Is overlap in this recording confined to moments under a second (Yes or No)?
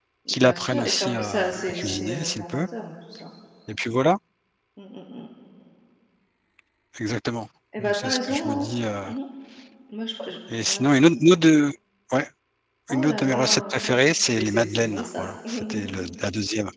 No